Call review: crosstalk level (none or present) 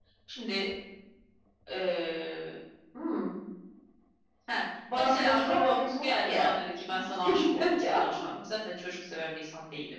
present